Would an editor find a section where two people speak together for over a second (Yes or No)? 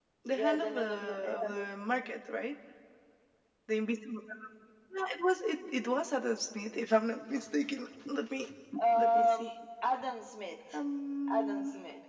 Yes